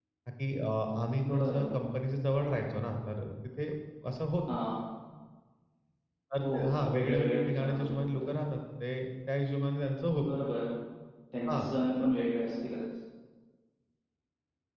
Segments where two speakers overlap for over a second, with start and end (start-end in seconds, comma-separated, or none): 6.9-8.3